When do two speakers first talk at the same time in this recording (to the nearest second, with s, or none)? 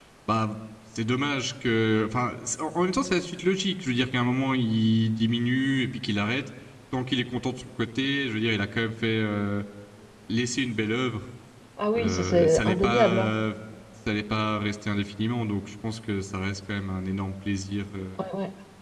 12 s